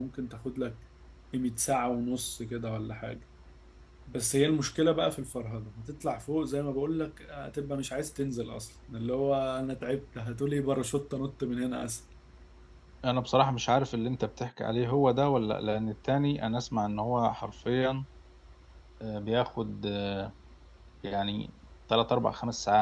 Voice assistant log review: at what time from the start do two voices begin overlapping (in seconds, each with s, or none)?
none